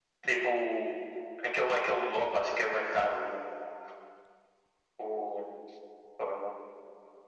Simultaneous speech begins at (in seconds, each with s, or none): none